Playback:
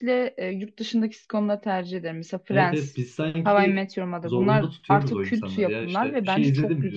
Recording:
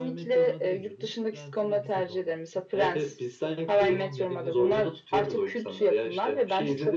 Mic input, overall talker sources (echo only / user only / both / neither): both